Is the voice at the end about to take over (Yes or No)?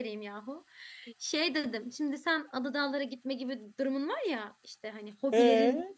No